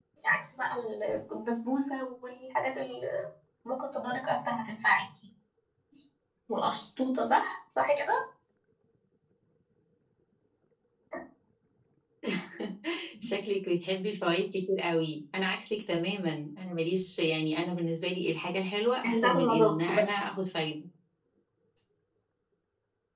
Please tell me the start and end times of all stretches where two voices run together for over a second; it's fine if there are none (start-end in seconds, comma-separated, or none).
19.1-20.3